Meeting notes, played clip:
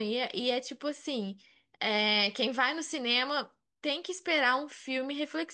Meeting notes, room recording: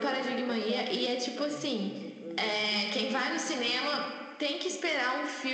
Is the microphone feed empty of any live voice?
No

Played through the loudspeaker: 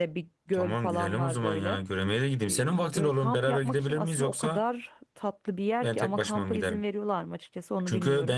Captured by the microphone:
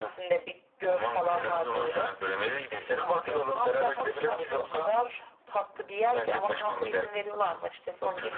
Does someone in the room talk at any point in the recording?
No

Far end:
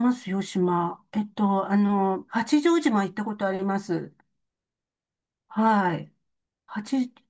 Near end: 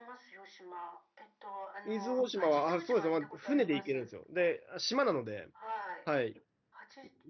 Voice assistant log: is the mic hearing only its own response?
No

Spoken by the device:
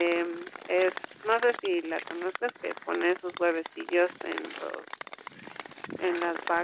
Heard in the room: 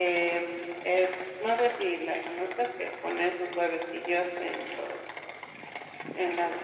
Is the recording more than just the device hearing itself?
No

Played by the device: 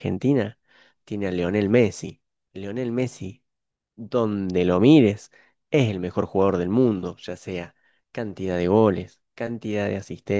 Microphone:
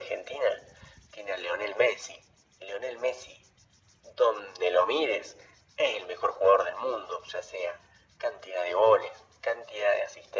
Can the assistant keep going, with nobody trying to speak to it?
Yes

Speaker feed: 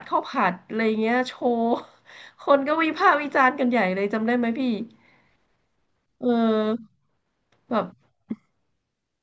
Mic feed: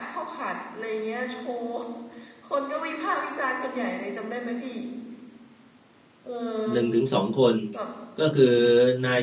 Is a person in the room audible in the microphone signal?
Yes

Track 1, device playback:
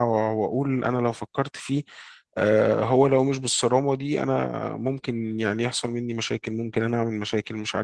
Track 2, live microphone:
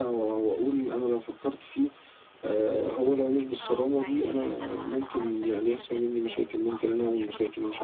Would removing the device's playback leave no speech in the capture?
No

